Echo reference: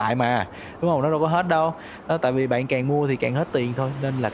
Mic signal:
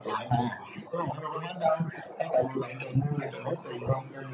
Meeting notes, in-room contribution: none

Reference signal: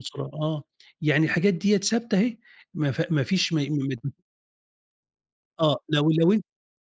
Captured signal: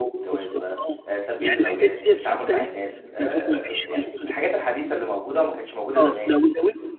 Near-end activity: present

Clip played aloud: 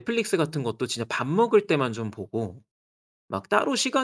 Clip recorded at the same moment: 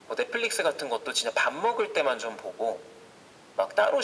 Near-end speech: none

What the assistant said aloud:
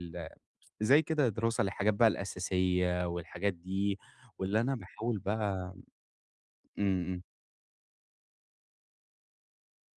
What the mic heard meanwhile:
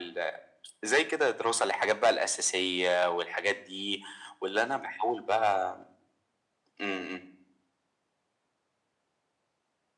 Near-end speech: none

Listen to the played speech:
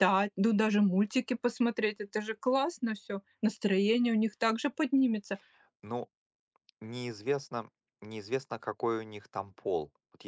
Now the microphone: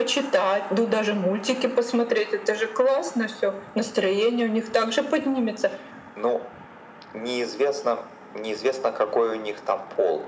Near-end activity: none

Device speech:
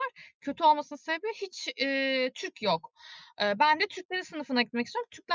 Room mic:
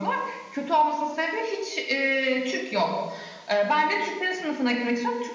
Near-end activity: none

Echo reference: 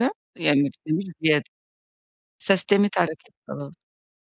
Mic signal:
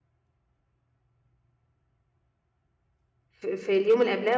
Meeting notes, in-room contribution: present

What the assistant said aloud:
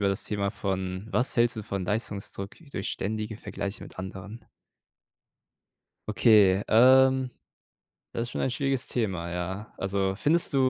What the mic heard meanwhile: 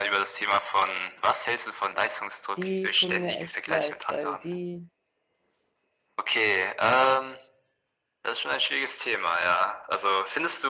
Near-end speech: present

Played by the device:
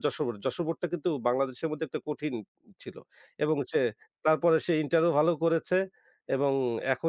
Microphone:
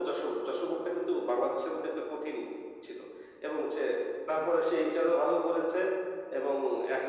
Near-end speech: none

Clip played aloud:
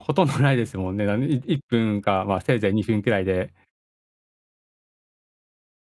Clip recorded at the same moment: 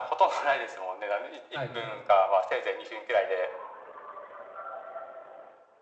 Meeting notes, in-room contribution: present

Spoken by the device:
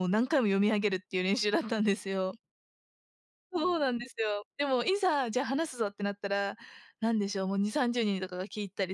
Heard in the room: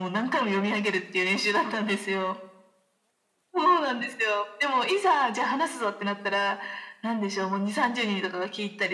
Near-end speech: none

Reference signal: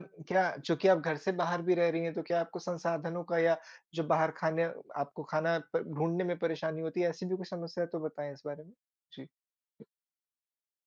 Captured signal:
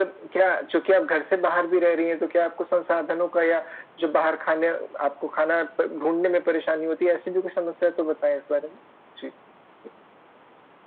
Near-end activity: none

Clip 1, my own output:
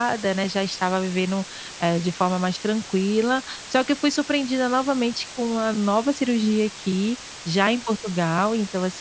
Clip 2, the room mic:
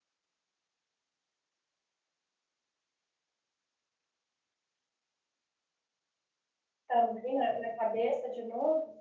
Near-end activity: present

